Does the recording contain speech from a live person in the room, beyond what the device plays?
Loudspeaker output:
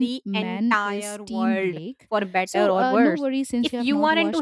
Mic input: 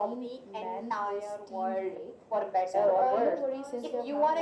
Yes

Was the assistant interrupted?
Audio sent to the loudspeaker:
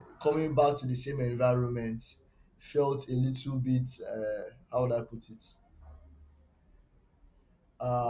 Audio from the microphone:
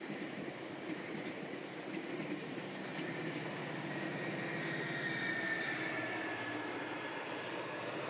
No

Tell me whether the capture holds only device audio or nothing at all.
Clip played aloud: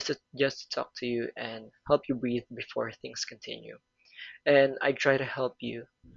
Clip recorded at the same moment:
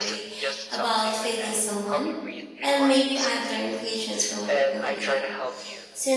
No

